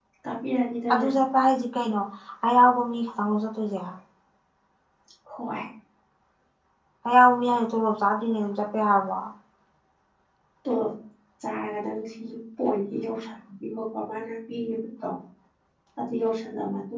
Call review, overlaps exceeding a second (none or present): none